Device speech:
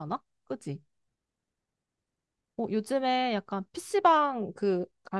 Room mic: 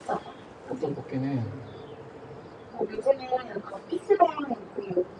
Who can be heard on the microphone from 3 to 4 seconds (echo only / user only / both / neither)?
echo only